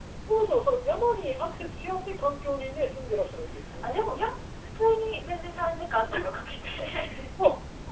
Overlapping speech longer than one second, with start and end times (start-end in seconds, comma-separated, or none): none